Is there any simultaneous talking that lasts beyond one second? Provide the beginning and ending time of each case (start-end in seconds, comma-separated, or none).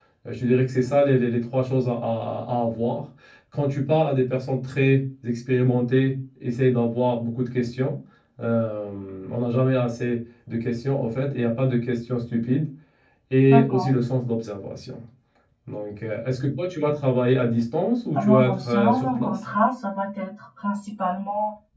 18.1-19.4